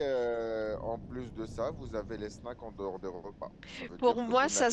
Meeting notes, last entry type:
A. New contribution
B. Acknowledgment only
A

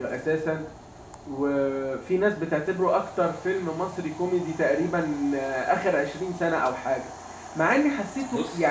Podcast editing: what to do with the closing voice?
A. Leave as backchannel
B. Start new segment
A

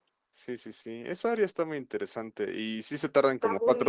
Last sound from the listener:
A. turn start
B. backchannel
B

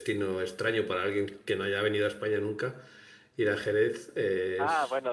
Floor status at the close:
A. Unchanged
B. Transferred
B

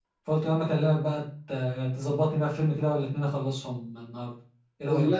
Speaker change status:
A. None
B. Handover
B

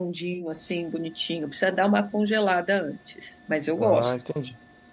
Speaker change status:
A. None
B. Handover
B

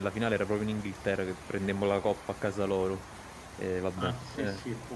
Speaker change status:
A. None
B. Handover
B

